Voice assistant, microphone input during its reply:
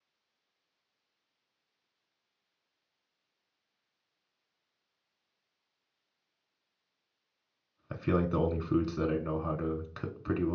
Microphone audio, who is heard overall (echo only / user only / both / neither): user only